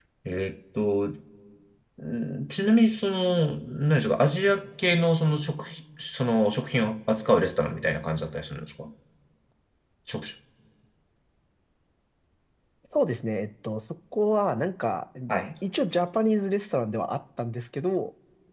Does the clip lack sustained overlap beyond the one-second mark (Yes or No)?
Yes